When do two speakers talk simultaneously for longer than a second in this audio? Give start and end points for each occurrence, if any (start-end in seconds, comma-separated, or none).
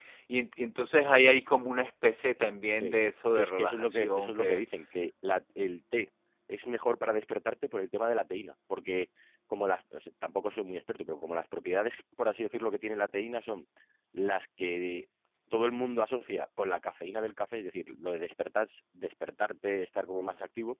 3.3-4.6